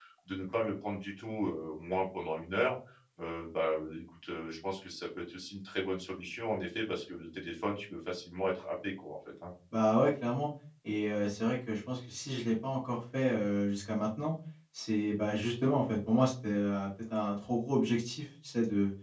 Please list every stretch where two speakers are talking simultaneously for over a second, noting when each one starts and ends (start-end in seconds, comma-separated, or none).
none